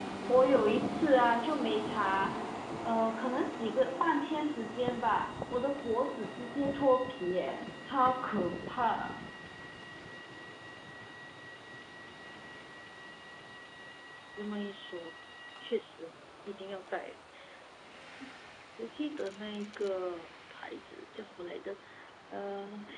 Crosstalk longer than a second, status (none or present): none